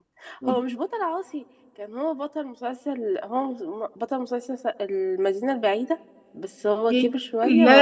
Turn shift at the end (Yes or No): Yes